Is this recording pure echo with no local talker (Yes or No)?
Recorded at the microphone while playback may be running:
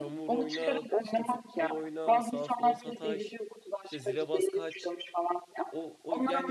No